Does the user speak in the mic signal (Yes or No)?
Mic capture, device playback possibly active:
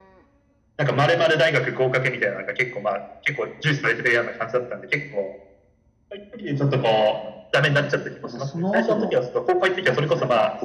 Yes